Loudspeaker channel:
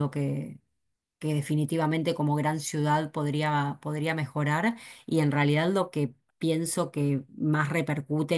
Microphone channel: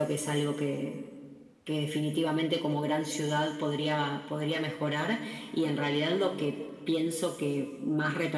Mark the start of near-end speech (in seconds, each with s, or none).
none